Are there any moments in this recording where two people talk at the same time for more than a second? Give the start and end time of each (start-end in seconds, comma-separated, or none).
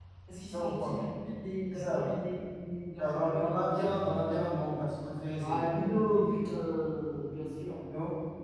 none